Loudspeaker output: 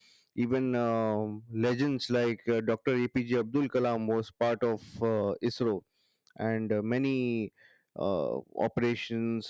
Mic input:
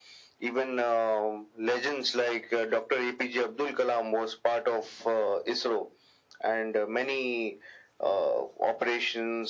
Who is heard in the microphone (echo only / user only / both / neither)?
echo only